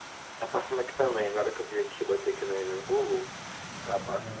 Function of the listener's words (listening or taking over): listening